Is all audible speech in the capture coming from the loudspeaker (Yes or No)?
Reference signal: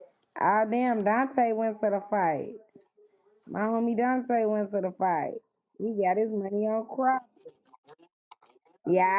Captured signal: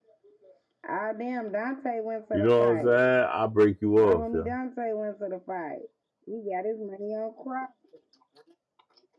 No